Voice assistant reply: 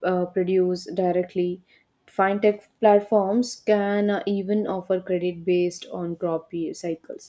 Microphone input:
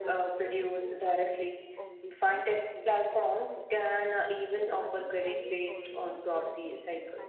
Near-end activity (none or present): present